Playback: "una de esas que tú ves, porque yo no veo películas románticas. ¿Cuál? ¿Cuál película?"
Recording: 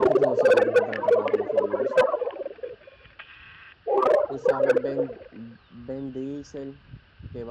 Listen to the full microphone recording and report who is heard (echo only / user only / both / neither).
both